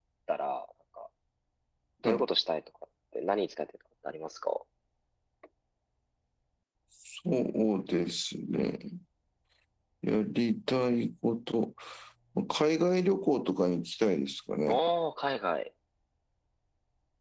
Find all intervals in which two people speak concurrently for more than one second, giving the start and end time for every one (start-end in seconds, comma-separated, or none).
none